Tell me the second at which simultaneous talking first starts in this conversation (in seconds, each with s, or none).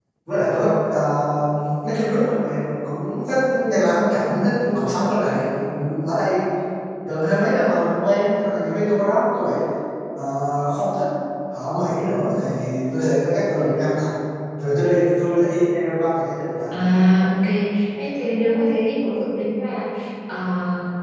none